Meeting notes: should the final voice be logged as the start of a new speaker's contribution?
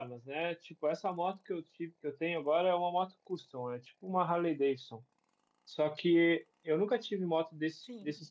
No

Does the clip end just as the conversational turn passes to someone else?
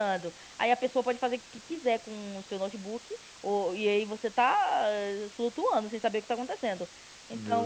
No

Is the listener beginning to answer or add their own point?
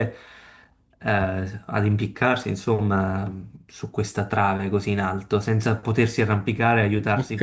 Yes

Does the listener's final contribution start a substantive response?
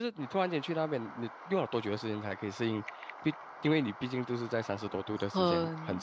Yes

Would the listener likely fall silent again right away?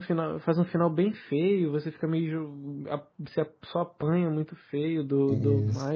No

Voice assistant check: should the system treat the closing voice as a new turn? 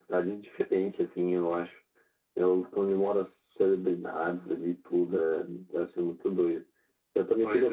No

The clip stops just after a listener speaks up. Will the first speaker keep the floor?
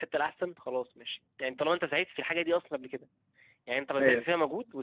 Yes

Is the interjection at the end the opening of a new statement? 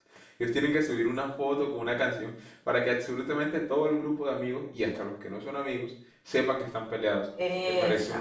No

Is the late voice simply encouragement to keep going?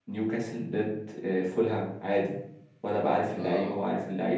No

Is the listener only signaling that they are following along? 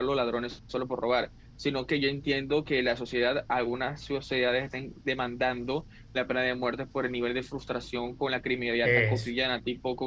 Yes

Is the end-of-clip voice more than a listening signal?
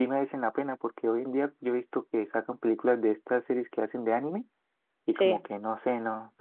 No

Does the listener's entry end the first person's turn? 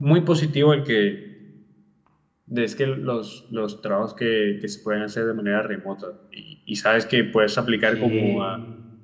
No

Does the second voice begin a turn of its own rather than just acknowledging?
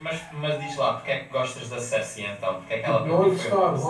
Yes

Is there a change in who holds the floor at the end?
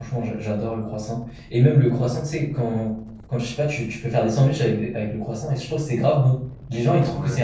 No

